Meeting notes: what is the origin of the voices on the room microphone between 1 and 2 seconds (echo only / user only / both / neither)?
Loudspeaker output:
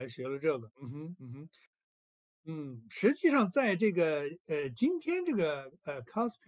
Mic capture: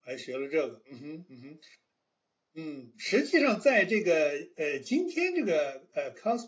echo only